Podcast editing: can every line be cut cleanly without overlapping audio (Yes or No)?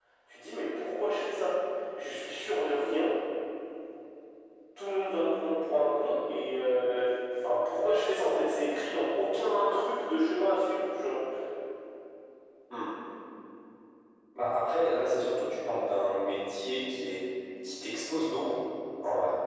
Yes